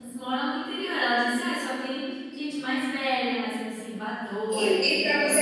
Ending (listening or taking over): taking over